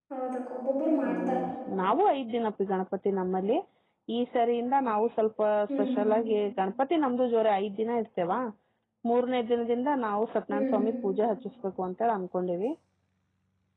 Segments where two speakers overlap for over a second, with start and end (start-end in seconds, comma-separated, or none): none